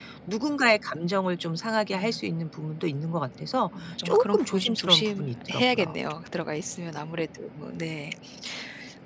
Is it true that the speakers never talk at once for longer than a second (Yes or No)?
No